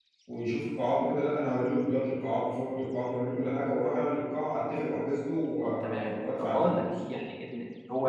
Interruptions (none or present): present